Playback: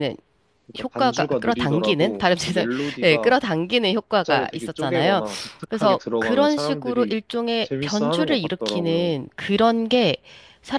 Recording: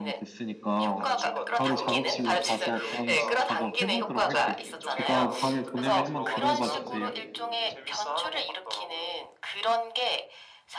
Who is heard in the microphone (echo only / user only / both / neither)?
both